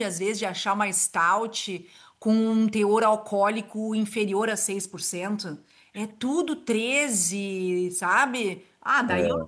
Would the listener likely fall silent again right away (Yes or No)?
Yes